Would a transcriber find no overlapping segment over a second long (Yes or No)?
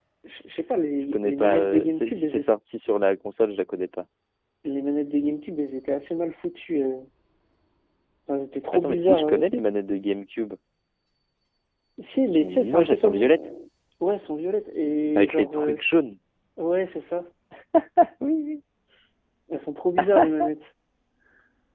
No